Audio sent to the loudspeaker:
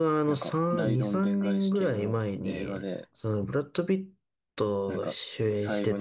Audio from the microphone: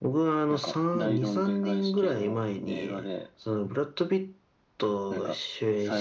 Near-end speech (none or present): none